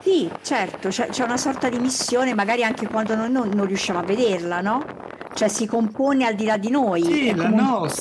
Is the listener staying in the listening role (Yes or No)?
No